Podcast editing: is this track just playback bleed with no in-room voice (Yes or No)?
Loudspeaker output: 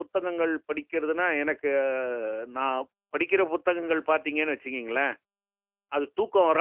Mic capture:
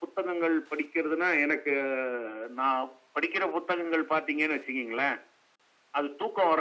Yes